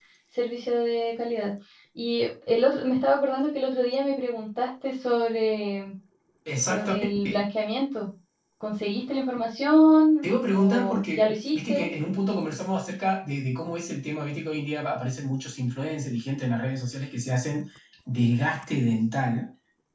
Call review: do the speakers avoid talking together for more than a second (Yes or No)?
No